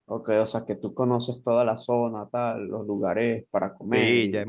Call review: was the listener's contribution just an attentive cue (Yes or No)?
No